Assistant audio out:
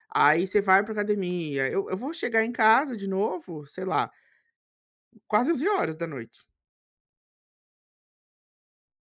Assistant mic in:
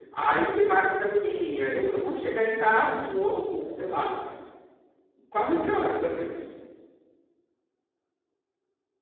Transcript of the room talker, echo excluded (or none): none